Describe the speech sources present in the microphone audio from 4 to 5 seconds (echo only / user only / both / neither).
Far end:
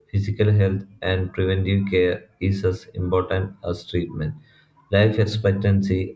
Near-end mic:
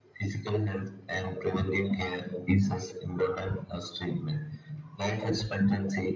echo only